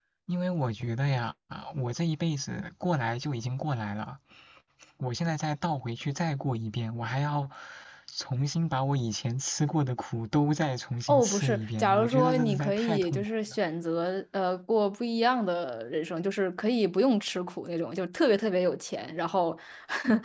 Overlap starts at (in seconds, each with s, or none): 11.1 s